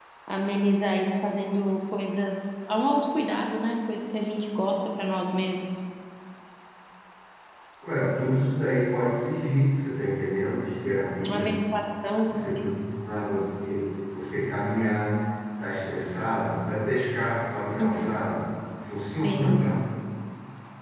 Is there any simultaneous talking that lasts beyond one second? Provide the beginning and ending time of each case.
none

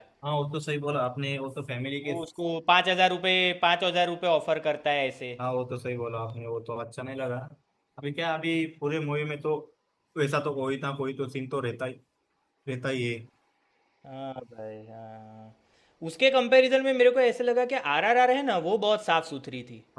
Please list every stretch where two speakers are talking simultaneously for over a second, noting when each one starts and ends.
none

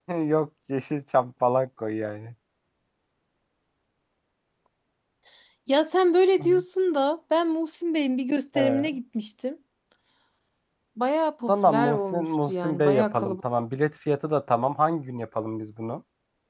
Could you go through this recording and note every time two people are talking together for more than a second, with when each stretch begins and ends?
11.5-13.4

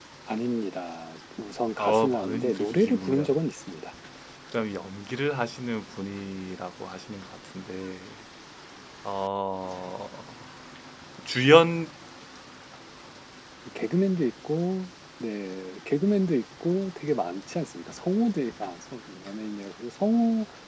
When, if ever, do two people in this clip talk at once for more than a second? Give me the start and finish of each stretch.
1.8-3.3

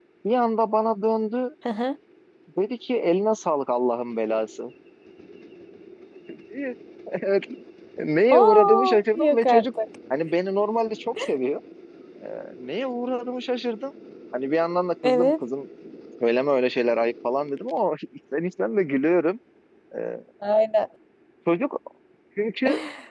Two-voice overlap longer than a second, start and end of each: 8.3-9.7

